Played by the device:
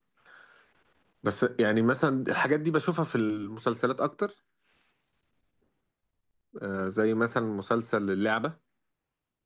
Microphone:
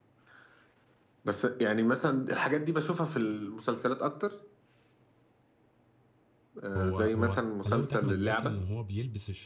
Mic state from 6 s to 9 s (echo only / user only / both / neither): both